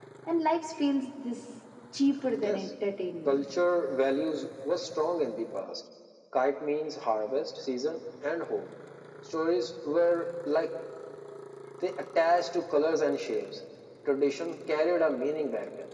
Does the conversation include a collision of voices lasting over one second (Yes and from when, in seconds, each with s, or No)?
No